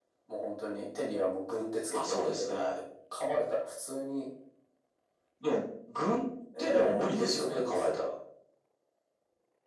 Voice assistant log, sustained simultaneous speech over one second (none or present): present